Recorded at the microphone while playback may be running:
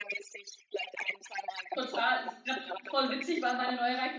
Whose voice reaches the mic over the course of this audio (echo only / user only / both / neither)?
both